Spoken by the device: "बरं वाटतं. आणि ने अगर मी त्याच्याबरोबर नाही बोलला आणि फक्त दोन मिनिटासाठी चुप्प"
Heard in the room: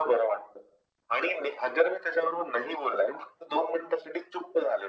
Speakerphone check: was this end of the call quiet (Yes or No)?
Yes